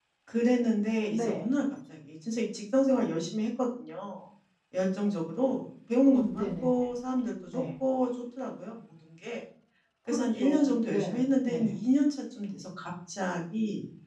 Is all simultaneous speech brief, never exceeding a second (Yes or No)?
No